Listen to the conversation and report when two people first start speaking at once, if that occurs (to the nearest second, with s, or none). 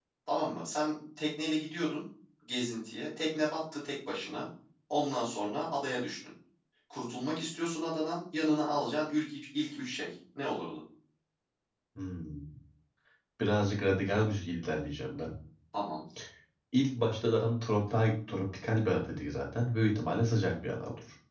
none